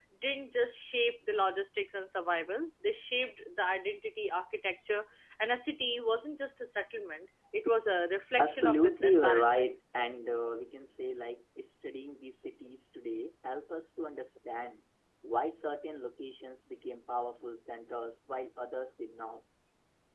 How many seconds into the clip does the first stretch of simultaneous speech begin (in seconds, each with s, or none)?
8.4 s